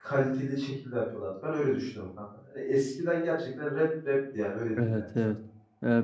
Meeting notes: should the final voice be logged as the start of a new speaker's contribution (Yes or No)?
Yes